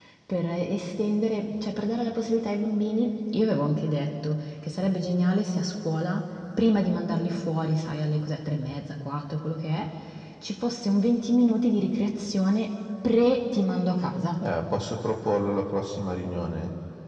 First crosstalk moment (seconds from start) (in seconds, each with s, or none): none